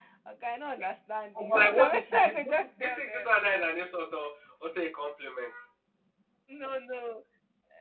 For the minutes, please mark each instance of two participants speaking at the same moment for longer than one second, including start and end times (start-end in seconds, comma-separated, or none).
1.4-3.3